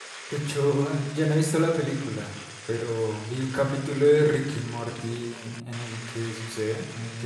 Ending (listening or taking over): listening